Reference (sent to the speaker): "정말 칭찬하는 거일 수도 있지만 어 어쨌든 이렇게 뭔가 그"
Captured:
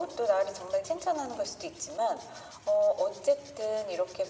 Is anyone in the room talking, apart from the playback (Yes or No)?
No